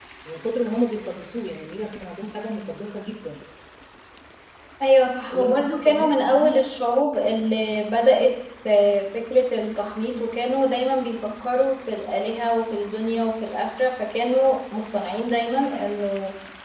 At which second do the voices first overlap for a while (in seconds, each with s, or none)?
5.3 s